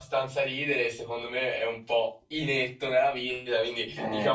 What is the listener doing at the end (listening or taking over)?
listening